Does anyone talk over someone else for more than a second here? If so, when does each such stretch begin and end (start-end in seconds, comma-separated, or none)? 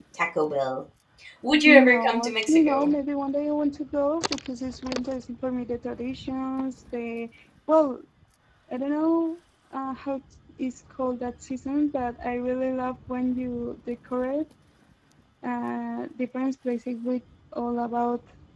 1.6-2.9